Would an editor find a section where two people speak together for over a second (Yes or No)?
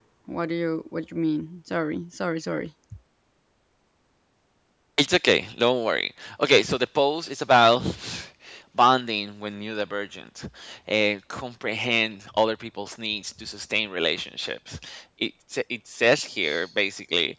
No